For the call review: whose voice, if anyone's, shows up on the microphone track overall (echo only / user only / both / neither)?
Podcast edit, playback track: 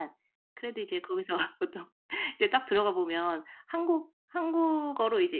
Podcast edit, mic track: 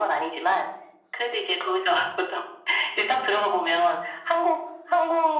echo only